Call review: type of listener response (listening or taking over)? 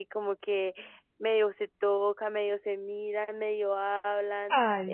taking over